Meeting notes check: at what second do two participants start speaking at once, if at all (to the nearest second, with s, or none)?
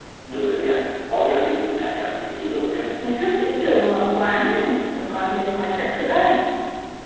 none